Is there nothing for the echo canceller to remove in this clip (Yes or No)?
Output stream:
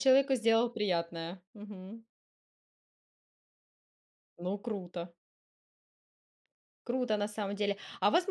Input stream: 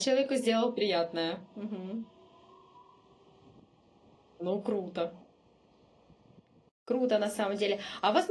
No